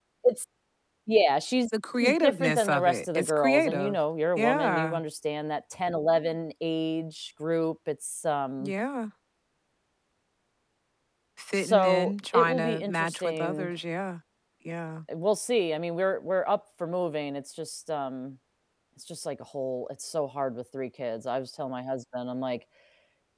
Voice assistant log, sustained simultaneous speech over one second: present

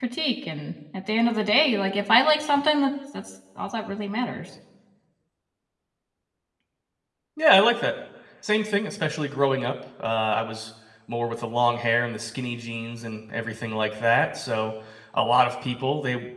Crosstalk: none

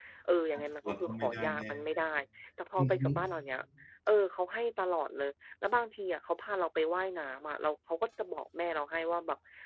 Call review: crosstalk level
present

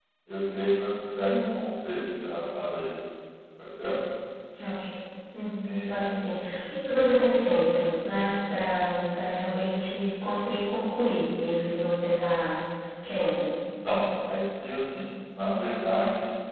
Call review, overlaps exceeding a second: none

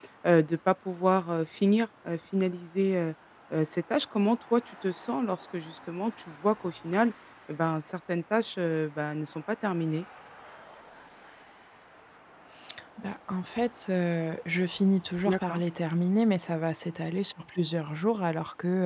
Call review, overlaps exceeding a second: none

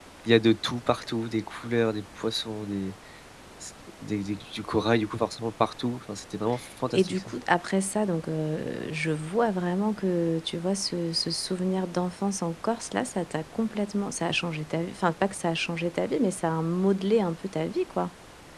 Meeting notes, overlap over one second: none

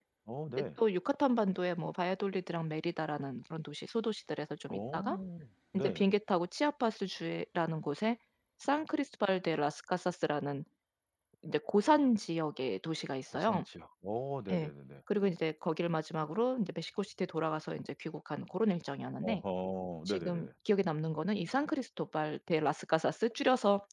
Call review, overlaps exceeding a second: none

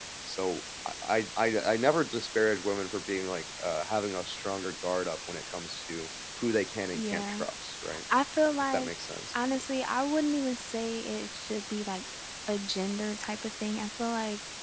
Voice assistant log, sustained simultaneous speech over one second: none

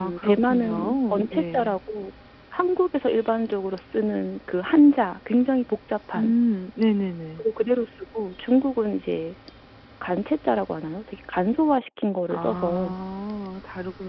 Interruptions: present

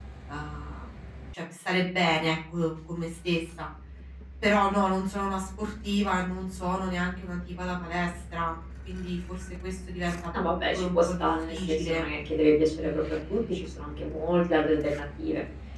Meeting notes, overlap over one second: present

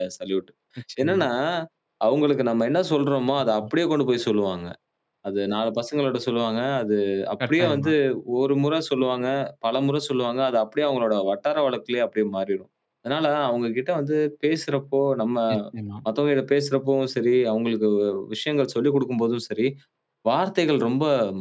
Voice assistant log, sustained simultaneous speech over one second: none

